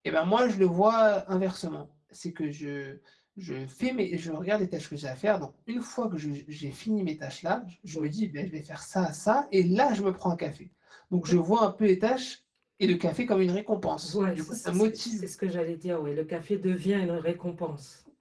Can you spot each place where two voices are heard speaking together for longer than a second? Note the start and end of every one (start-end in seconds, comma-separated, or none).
14.0-15.2